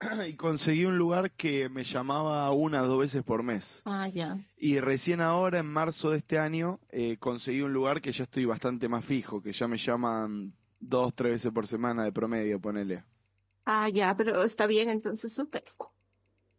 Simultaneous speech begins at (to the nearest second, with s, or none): none